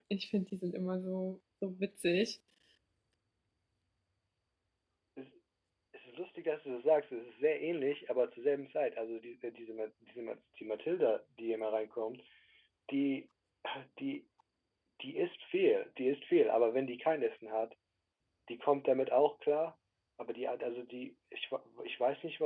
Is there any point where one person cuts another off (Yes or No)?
No